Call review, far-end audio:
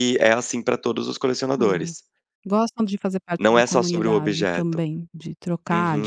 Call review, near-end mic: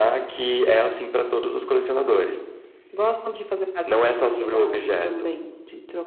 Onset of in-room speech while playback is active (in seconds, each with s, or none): none